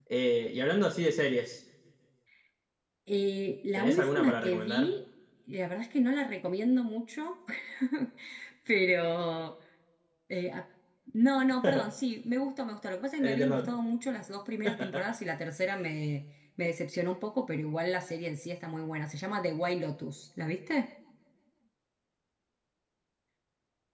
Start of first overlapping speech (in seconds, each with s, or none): 3.8 s